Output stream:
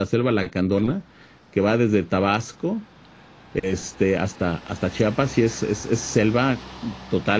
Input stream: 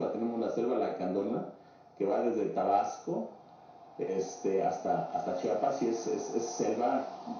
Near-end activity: none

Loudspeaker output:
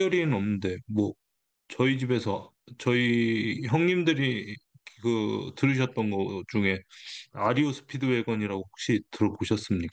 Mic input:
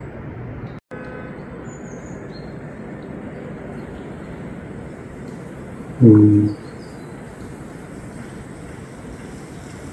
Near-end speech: present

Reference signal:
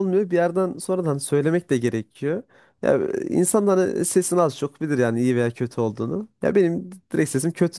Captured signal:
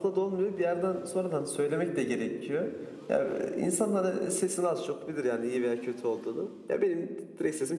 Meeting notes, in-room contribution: none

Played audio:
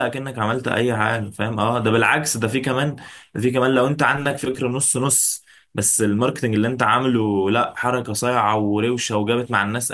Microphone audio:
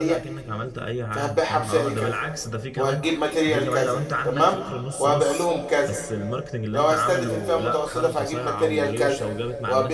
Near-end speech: present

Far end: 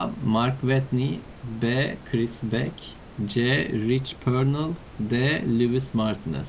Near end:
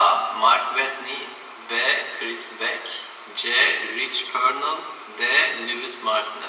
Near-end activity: none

